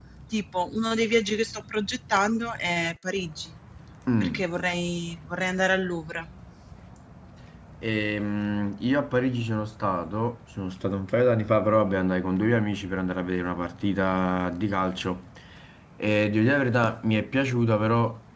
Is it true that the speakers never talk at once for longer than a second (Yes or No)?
Yes